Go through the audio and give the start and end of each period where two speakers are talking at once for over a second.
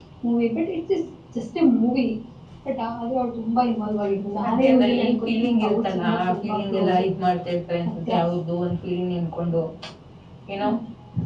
4.5-7.0

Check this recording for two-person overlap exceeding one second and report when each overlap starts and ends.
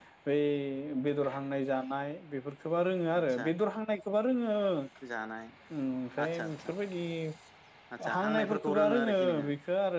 8.1-9.5

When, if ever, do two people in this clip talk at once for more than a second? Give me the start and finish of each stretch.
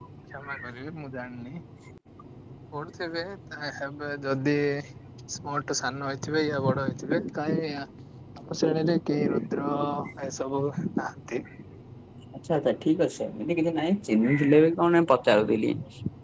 none

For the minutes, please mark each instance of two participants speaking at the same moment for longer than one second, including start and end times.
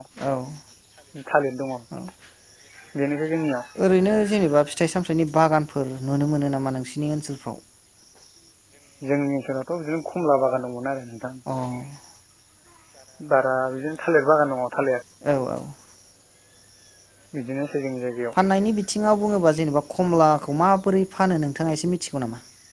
none

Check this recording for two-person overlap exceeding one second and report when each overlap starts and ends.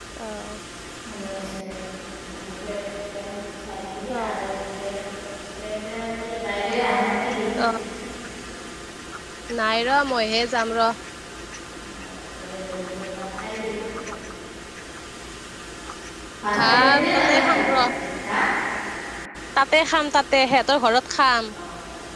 16.6-17.8

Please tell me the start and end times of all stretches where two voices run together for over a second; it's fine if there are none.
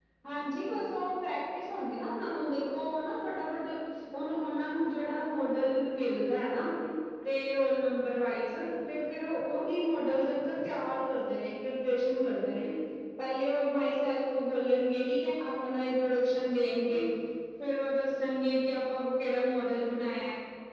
none

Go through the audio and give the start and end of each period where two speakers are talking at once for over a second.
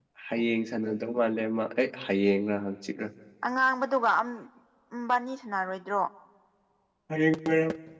none

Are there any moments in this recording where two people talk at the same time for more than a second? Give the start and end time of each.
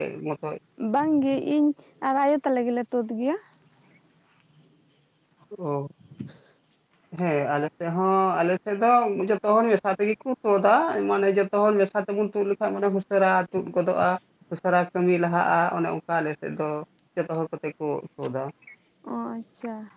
none

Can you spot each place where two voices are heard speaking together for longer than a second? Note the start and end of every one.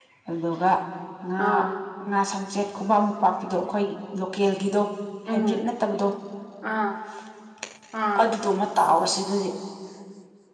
none

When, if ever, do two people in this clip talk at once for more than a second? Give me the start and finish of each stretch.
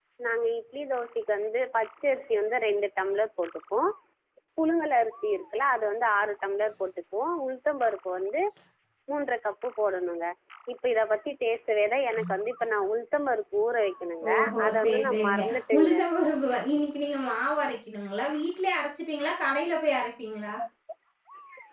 14.3-15.9

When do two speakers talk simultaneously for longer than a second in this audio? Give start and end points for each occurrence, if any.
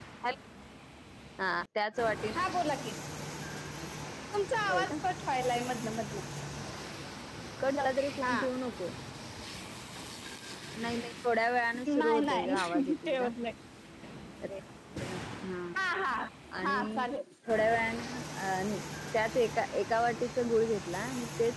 11.9-13.3

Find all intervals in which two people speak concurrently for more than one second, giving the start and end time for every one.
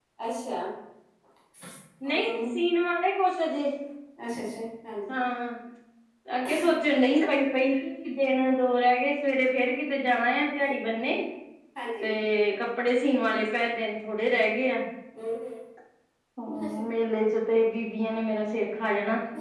none

